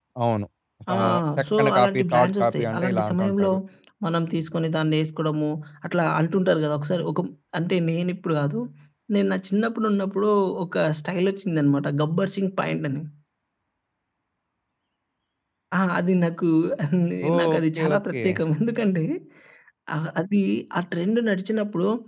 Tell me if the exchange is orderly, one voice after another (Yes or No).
No